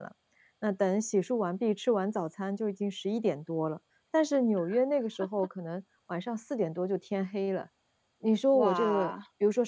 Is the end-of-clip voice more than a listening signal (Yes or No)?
No